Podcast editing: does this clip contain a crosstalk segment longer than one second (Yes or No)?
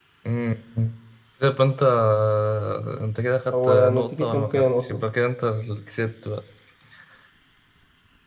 Yes